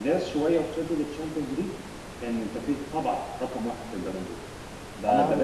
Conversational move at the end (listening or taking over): taking over